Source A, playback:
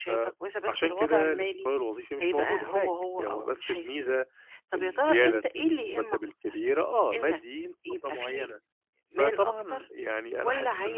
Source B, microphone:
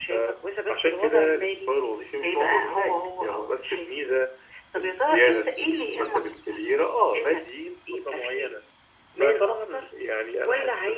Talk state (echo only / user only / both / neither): echo only